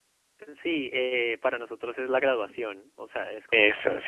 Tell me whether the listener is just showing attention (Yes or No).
Yes